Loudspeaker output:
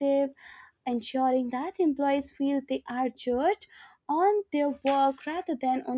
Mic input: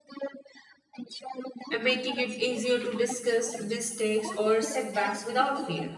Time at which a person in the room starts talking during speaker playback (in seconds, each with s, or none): 1.7 s